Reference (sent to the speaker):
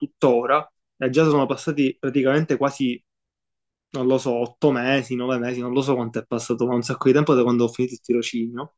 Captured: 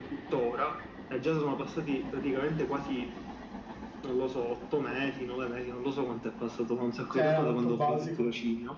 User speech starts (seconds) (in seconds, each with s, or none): 7.1 s